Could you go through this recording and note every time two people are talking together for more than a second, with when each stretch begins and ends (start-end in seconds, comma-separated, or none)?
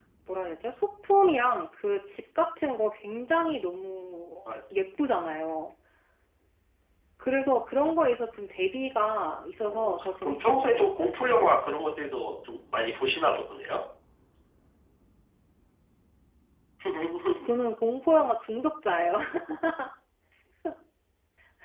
9.6-11.6